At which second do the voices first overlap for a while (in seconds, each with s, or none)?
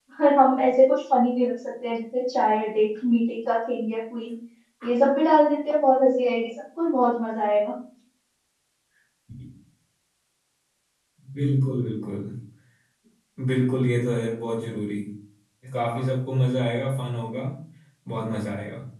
none